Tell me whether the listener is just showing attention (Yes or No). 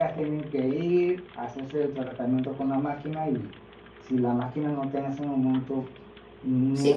No